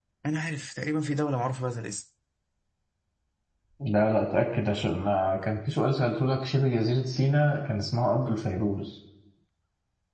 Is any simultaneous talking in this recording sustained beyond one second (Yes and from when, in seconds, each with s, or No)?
No